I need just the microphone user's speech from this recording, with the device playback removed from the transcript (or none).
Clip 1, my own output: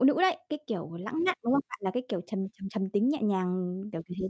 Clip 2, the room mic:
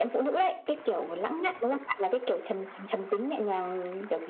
none